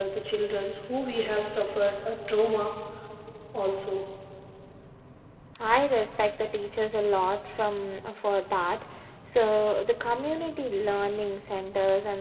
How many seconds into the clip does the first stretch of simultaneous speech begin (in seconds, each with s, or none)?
none